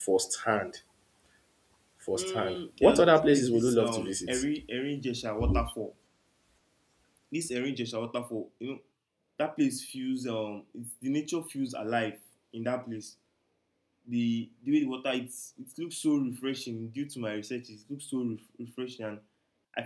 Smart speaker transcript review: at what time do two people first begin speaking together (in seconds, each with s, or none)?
2.2 s